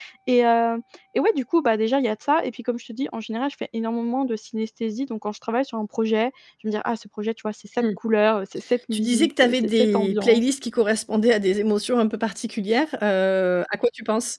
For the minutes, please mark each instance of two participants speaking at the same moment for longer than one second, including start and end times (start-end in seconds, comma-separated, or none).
8.9-10.4